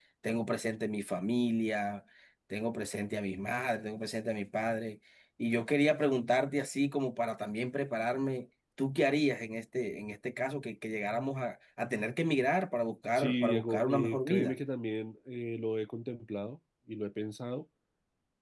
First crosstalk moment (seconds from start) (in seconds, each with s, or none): 13.2 s